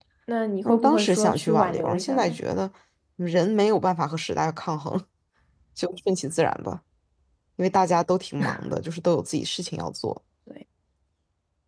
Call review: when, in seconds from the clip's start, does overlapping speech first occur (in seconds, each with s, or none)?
0.7 s